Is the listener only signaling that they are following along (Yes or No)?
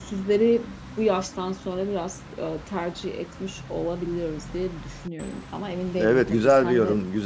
No